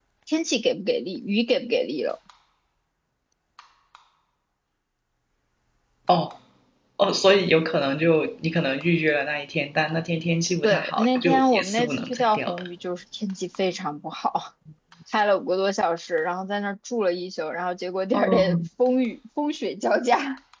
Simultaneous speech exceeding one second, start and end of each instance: 10.6-12.6

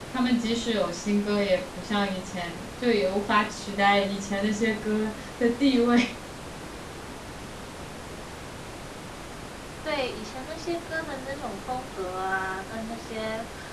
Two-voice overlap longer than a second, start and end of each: none

